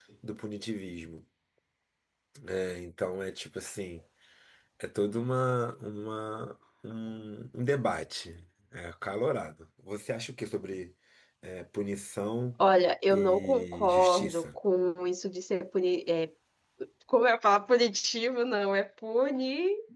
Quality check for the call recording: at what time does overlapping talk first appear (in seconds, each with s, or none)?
13.1 s